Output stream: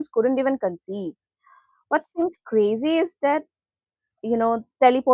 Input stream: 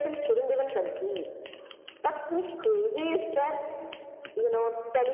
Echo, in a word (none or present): present